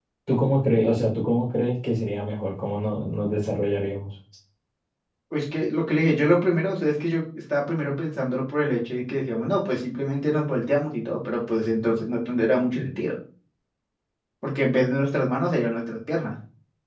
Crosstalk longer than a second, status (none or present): none